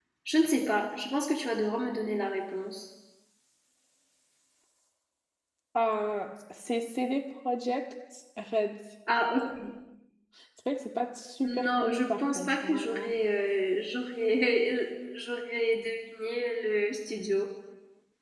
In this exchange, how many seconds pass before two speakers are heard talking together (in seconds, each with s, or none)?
11.4 s